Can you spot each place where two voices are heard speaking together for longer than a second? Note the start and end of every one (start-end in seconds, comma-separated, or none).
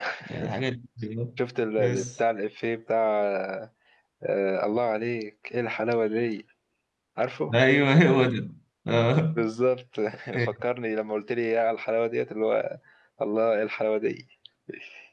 none